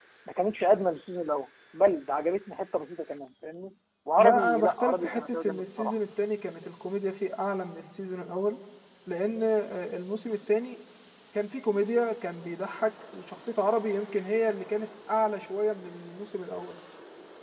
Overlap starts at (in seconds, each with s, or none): 4.2 s